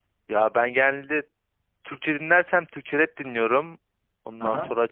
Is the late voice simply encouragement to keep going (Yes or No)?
Yes